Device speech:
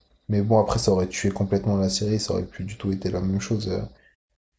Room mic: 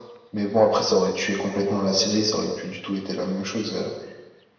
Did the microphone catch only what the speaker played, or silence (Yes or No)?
Yes